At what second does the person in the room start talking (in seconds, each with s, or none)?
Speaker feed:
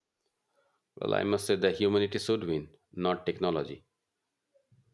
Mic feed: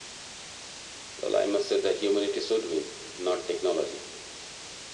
none